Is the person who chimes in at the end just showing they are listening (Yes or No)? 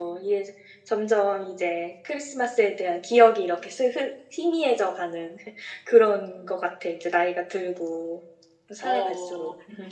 No